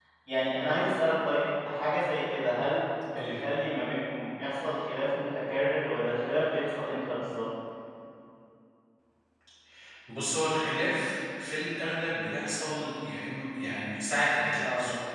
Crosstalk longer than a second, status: none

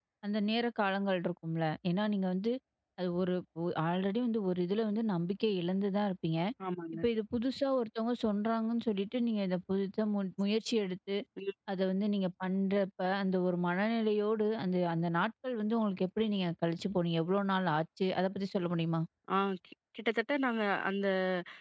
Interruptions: none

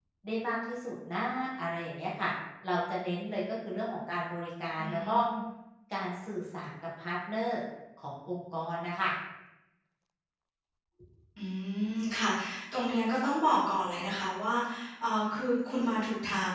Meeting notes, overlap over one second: none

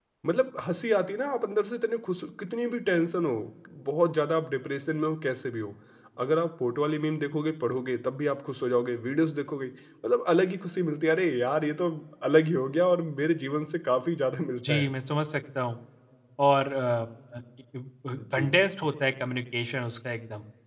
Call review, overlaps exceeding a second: none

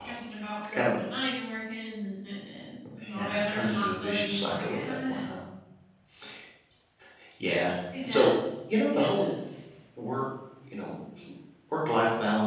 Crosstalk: present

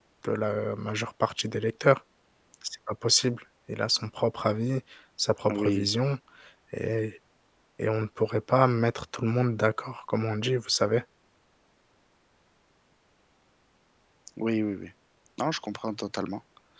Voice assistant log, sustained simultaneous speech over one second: none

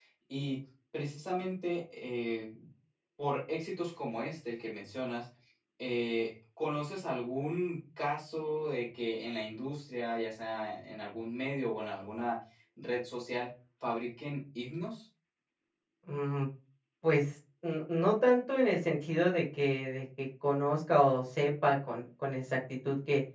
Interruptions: none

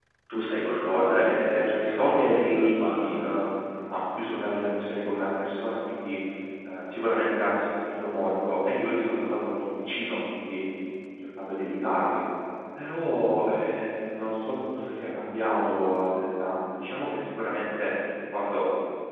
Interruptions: present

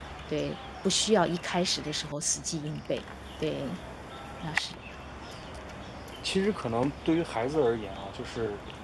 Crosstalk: none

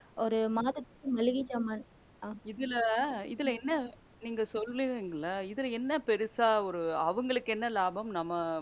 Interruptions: none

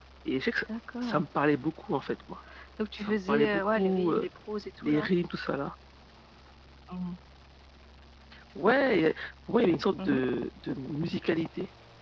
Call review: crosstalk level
present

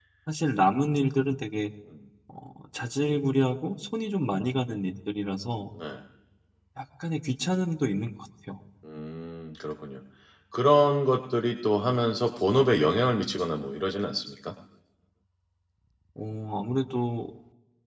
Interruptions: none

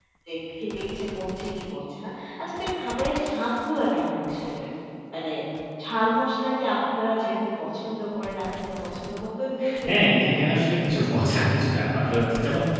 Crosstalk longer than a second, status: none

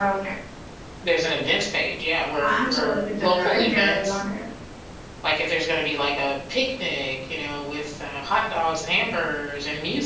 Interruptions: present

